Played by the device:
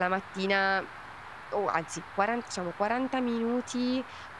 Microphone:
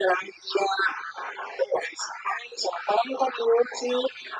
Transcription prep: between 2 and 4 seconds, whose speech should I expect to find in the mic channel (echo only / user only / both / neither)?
echo only